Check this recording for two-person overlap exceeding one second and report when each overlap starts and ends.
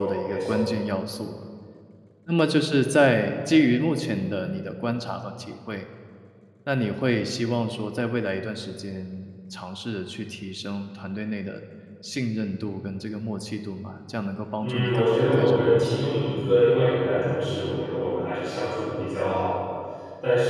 14.6-16.0

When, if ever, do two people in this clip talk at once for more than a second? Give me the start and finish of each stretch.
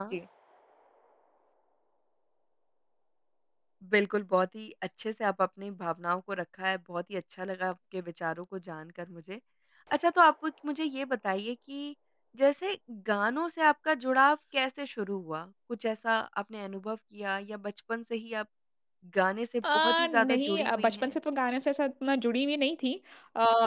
19.7-21.1

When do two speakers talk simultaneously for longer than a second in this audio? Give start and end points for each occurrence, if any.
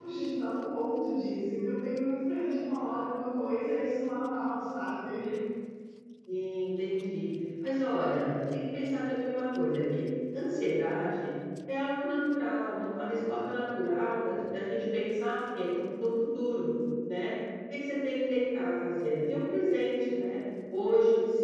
none

